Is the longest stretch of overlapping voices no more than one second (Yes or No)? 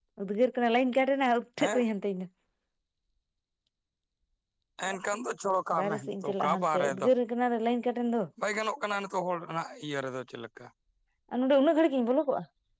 No